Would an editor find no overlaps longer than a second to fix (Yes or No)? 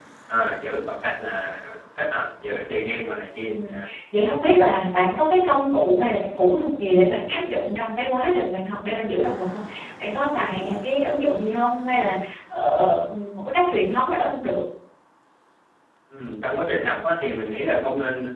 Yes